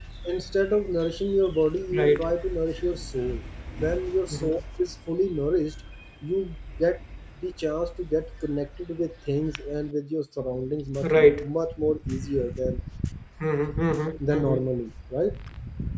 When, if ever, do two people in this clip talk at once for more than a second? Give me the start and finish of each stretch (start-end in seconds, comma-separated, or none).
none